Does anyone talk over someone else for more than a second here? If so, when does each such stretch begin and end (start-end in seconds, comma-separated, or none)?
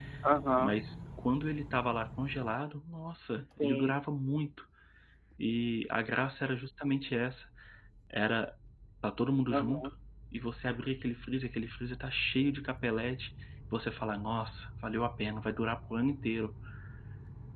none